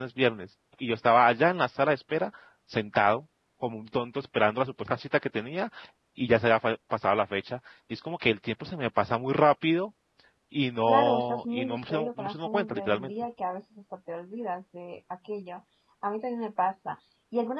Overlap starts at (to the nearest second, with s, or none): 11 s